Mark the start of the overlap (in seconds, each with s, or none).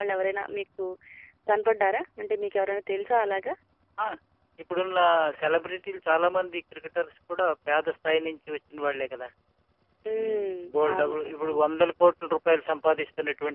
10.2 s